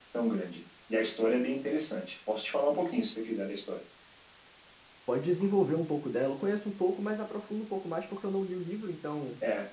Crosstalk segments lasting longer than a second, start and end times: none

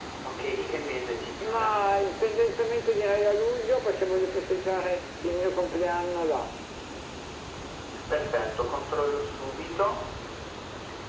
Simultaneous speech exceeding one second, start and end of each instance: none

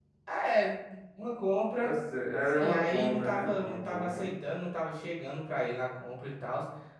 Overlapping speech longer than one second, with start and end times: 2.5-4.3

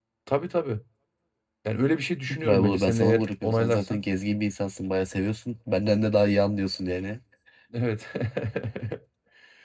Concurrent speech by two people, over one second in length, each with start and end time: 2.3-4.0

